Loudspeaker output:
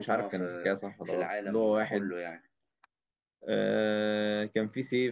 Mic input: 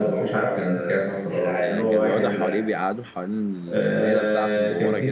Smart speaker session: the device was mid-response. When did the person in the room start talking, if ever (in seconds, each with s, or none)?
1.6 s